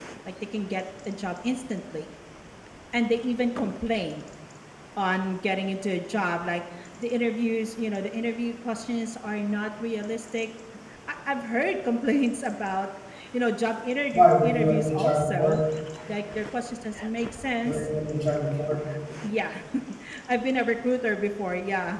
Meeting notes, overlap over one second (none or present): present